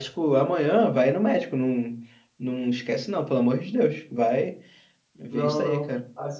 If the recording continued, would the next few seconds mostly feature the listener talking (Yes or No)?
Yes